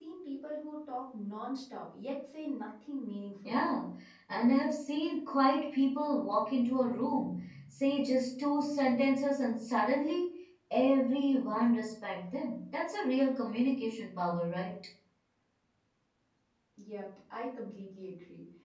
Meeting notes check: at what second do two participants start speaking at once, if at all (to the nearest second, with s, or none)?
none